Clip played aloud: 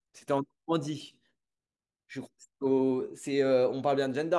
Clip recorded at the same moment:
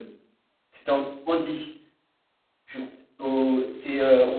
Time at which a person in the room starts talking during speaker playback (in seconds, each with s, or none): none